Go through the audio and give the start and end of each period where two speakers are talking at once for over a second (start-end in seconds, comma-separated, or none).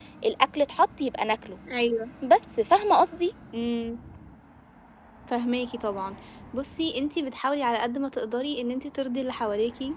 none